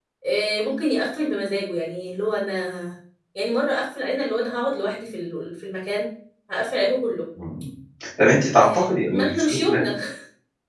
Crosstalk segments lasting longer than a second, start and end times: 8.5-9.8

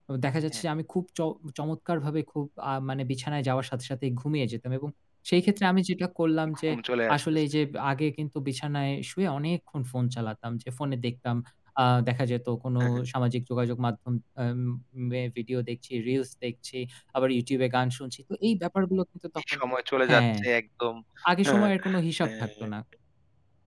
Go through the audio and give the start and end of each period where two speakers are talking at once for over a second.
none

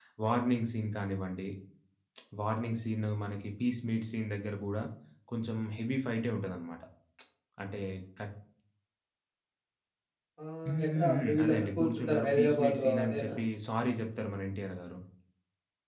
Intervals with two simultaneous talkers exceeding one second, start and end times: 10.7-13.3

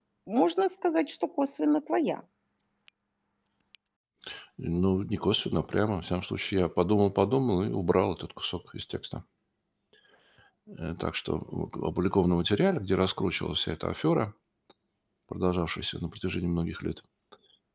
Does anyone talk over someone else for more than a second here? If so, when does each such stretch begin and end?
none

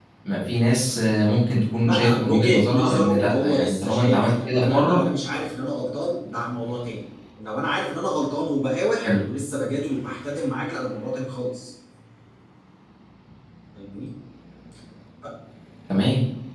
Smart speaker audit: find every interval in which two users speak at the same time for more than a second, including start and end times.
1.9-5.0

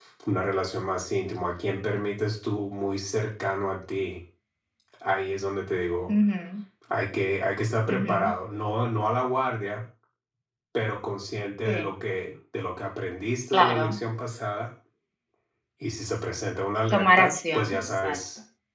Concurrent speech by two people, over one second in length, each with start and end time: 16.9-18.2

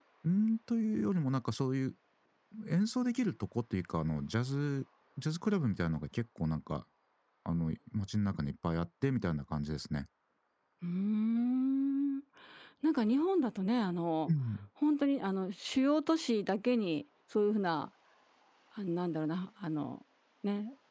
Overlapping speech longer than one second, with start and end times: none

